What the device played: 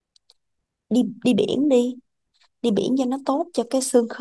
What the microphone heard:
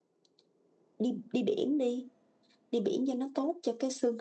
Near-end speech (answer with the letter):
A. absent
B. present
A